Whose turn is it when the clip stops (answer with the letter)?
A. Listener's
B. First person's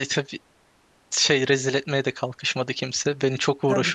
A